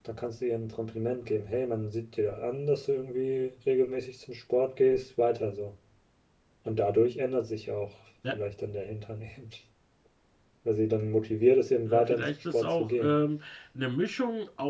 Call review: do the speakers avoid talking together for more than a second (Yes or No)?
No